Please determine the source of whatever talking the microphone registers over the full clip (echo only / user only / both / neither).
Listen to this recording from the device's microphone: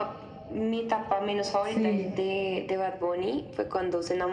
both